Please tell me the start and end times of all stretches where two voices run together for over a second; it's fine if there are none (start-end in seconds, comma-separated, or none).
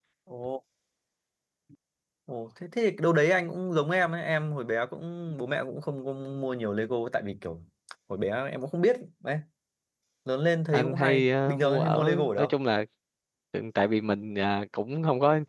10.7-12.5